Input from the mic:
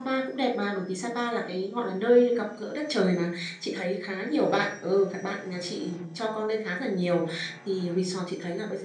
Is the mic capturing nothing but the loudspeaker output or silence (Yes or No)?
No